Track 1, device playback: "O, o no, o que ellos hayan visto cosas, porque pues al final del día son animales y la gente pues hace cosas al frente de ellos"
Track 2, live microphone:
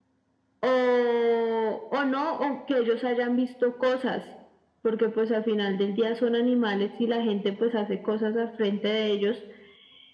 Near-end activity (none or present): none